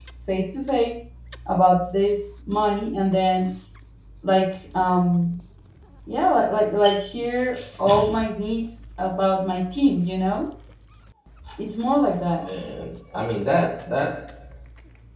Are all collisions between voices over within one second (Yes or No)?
Yes